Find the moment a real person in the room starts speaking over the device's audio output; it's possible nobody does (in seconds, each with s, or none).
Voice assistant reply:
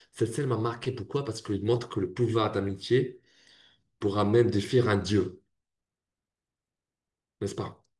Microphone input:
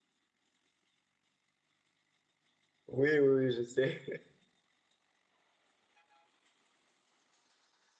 2.9 s